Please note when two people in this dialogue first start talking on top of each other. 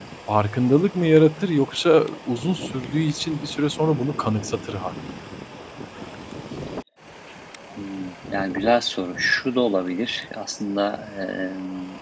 none

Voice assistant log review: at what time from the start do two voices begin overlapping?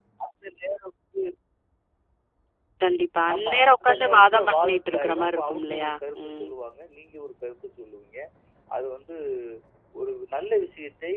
3.3 s

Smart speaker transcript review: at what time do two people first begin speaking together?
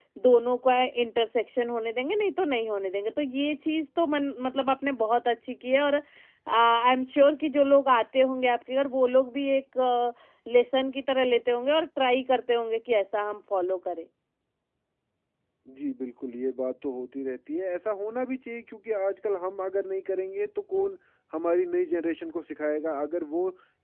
none

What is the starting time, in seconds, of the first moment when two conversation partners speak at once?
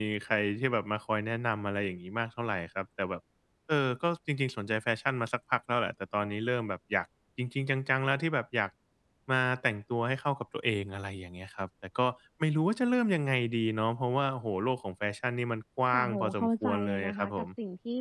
15.9 s

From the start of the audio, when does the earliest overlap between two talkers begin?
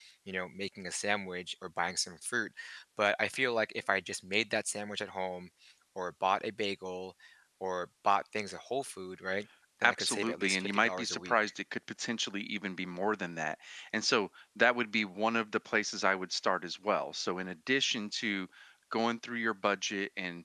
9.8 s

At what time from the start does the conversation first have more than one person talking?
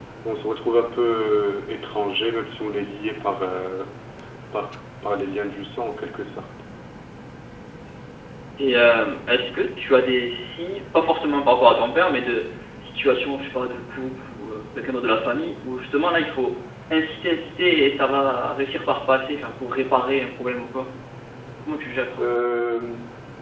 none

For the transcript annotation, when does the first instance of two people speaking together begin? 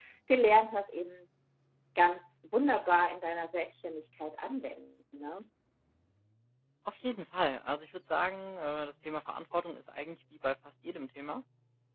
none

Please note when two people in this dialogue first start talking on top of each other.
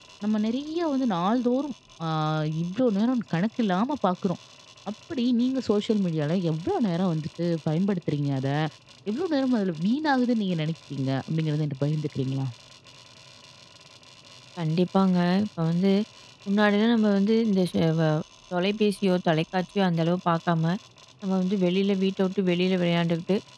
none

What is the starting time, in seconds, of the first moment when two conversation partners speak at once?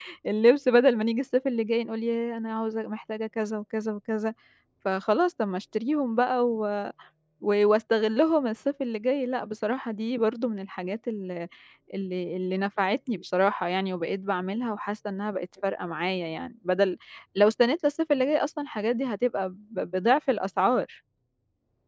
none

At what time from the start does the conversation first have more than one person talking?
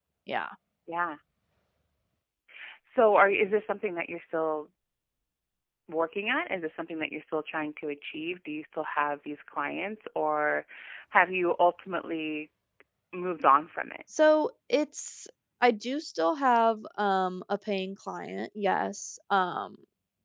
none

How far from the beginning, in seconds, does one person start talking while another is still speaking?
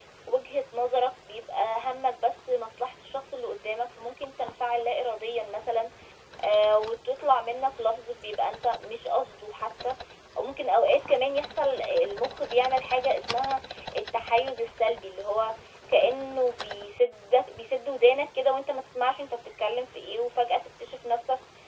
none

